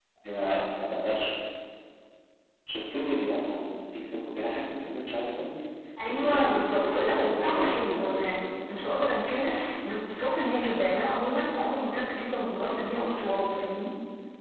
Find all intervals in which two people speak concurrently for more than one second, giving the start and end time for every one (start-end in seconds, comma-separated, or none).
6.1-8.3